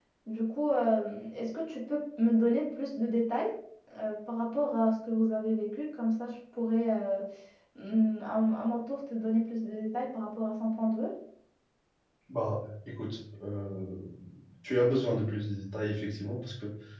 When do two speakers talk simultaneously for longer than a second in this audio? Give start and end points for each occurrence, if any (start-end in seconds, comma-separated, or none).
none